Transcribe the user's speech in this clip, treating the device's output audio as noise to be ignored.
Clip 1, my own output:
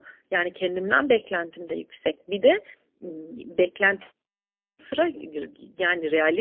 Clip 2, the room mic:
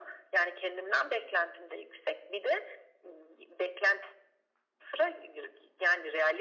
none

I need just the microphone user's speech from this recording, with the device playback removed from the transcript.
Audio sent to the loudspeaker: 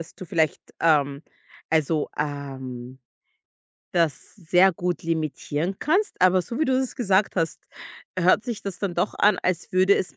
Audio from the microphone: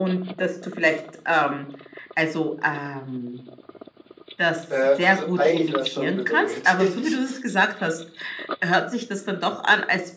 Äh, also, eigentlich wäre es schon bitter nötig.

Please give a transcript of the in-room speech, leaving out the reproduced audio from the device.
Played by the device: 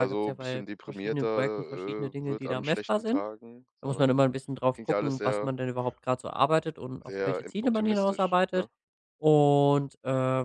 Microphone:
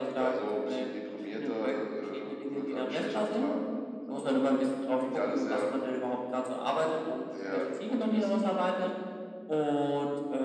none

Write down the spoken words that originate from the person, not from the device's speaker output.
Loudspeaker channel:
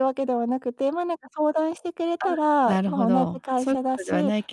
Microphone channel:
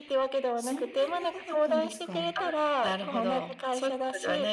そんなに長かったんですか。え、

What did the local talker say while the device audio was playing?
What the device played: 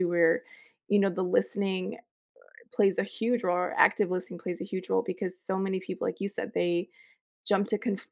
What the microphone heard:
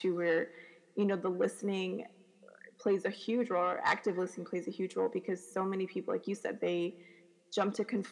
none

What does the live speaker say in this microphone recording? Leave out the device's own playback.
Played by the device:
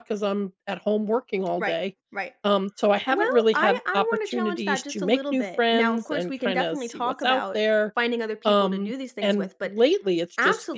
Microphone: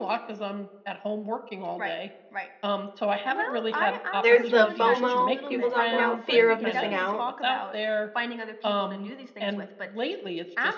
There's the FOMO people talk about, fear of missing out.

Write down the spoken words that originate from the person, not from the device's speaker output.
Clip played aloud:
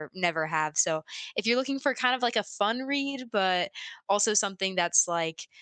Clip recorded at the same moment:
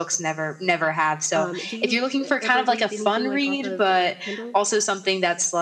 Um, do you uh, ever read anything like off of uh, Kindle?

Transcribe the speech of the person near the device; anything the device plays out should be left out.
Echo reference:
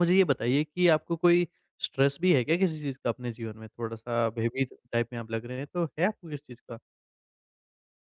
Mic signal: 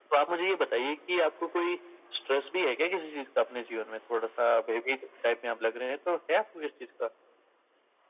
none

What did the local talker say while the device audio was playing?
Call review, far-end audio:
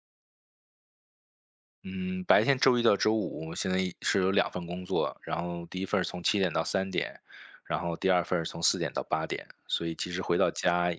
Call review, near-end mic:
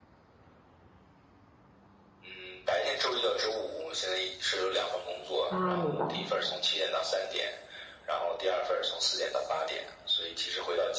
啊，明白

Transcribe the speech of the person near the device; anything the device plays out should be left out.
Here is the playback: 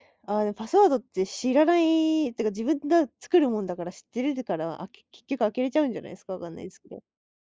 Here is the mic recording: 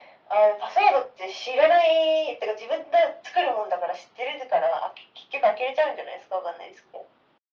none

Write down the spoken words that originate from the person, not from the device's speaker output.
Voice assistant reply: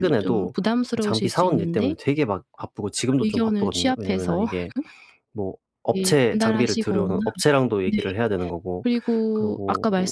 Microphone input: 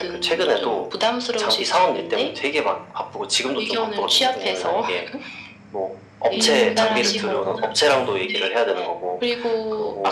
어.

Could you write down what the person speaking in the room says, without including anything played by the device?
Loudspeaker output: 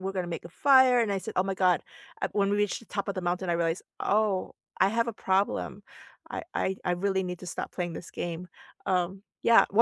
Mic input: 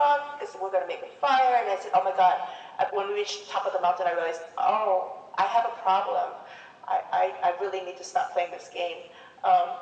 none

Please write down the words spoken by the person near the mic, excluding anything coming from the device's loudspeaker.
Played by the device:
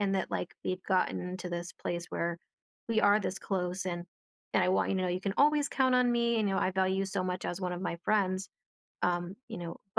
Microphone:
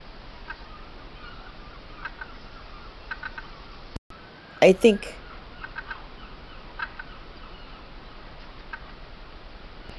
I think

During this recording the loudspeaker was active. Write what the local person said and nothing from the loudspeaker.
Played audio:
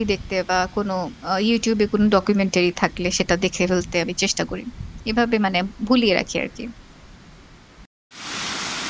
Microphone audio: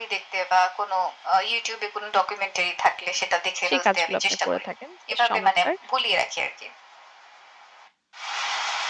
সেই কাজগুলো আপনি করে থাকেন। বেশ চমৎকার।

